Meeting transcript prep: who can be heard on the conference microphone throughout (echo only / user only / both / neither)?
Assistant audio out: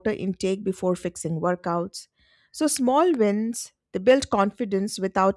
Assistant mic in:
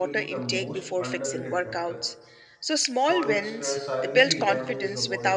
both